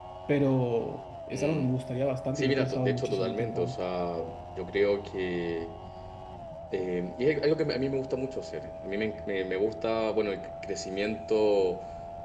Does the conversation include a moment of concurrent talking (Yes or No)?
Yes